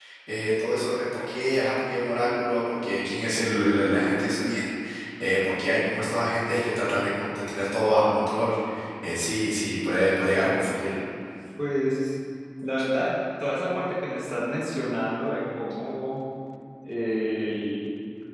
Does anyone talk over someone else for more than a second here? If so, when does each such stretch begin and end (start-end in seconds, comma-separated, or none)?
none